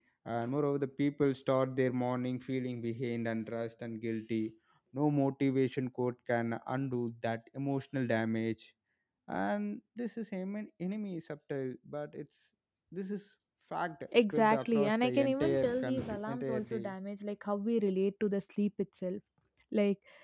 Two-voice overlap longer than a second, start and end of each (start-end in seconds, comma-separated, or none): 14.3-16.9